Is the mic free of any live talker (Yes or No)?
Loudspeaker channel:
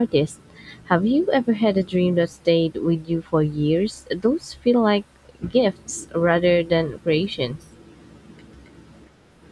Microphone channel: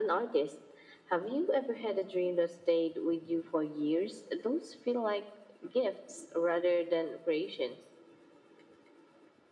Yes